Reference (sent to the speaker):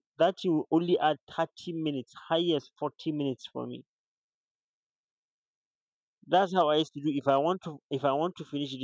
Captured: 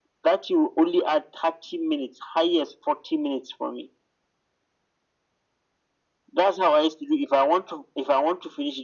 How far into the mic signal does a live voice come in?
none

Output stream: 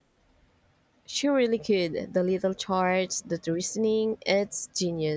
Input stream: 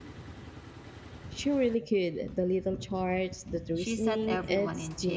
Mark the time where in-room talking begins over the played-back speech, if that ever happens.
4 s

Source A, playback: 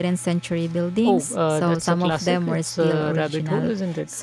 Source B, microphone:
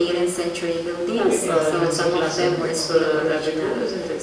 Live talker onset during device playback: 1 s

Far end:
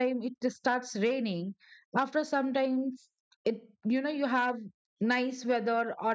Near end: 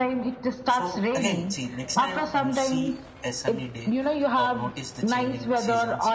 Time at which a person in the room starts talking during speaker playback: 1 s

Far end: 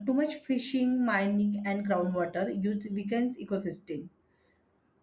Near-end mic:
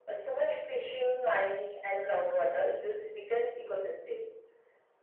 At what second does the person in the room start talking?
none

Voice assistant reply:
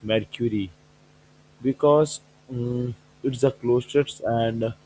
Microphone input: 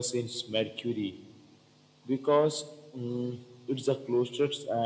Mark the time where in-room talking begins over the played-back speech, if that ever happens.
none

